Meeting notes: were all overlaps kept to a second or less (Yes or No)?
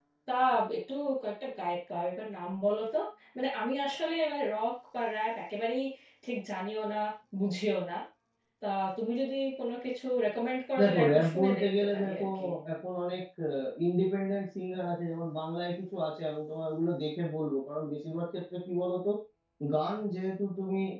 No